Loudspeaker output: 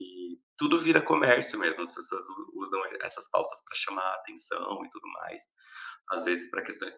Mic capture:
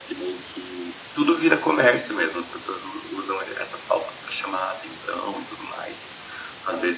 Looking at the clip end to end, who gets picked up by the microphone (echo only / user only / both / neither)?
echo only